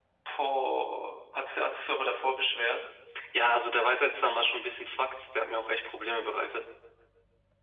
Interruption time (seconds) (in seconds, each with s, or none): none